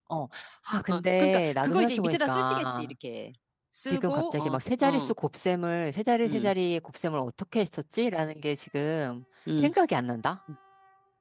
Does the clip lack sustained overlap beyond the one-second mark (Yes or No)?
No